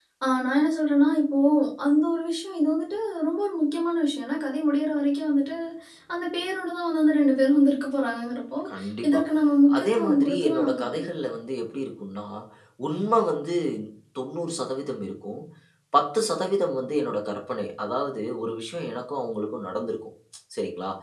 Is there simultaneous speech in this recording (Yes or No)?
Yes